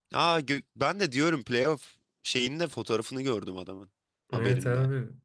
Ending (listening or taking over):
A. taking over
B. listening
A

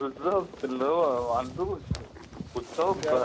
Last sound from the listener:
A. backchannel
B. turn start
A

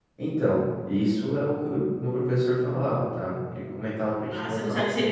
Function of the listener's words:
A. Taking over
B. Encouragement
A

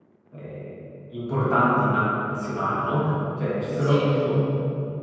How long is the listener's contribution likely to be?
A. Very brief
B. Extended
A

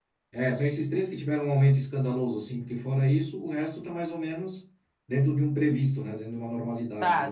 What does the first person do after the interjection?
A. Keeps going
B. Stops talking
B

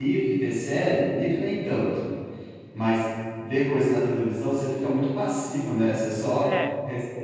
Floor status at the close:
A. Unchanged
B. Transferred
A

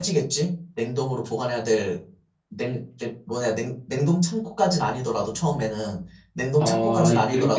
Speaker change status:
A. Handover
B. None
A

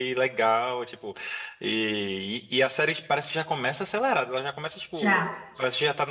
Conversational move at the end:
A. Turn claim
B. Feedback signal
B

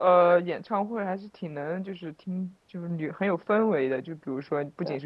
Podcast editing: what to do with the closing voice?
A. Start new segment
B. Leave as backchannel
B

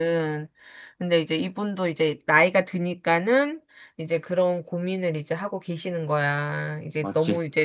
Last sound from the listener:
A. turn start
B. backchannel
B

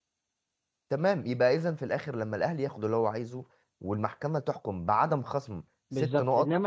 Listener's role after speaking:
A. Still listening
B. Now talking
B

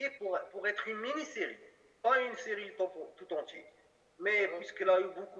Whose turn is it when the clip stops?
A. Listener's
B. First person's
B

